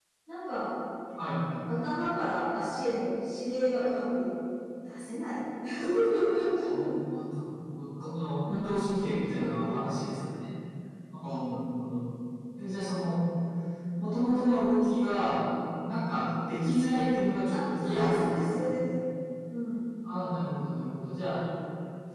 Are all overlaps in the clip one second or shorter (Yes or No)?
No